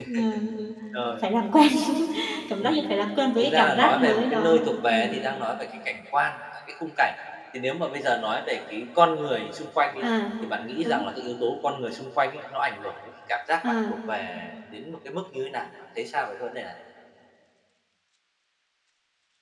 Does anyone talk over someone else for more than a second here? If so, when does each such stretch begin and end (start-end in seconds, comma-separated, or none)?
3.4-5.2